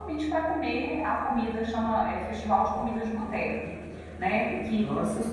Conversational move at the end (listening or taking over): listening